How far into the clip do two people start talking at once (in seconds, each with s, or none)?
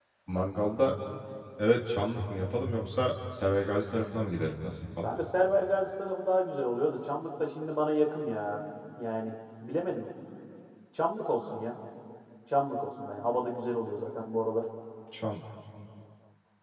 none